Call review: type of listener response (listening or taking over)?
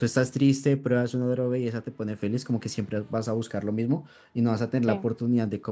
listening